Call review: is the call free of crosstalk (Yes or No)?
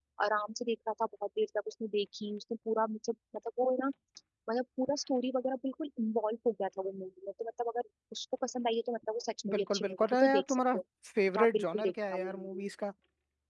No